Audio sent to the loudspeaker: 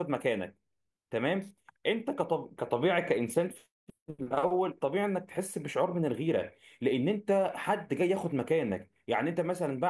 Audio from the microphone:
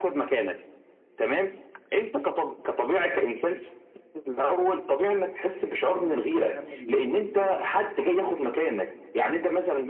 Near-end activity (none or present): present